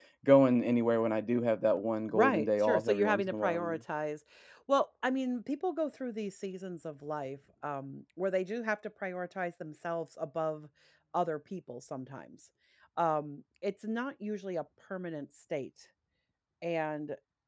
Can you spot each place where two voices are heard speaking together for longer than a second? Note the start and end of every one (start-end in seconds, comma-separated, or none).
2.1-3.8